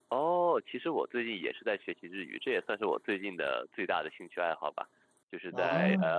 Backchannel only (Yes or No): Yes